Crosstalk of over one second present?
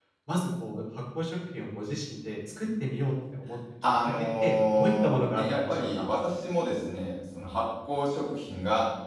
Yes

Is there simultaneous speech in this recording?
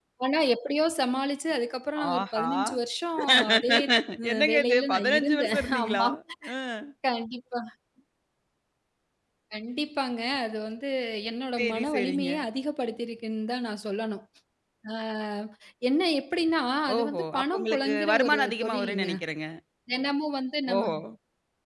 Yes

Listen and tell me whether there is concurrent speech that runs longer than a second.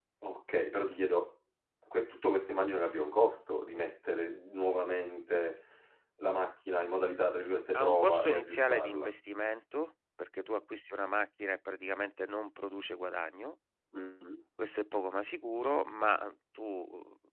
Yes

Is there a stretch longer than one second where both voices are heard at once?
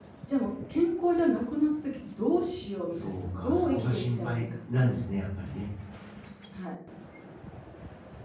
Yes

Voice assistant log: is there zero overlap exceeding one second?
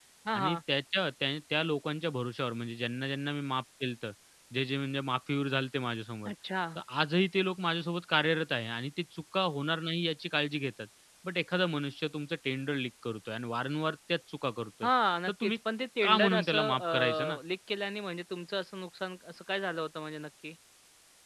No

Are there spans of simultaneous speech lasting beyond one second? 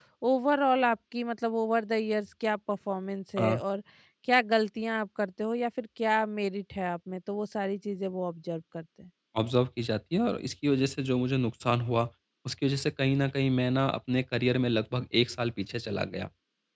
No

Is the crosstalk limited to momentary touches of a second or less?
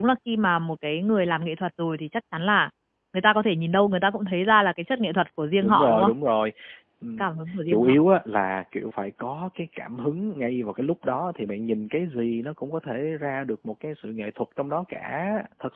Yes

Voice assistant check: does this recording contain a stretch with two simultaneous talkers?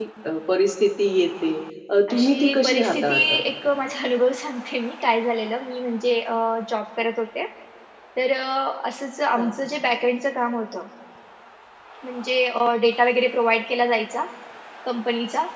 Yes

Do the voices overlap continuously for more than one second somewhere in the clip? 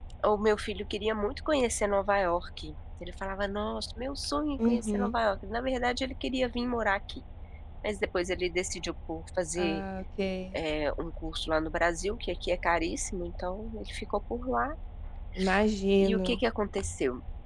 No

